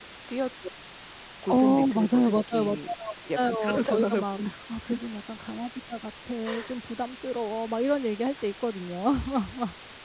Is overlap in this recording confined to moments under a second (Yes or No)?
No